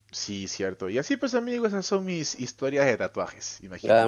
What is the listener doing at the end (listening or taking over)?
taking over